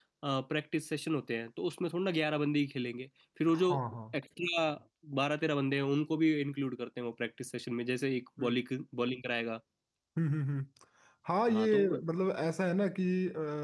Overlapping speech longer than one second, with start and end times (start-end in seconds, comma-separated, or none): none